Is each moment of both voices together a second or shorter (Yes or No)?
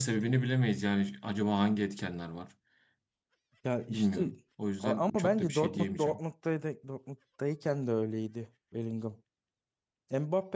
No